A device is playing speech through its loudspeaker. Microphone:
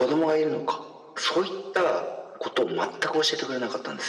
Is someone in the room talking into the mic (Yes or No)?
No